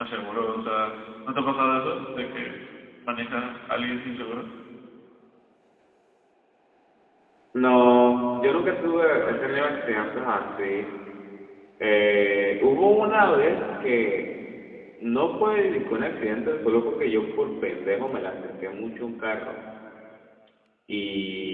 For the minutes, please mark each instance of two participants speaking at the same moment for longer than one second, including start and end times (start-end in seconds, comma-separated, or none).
none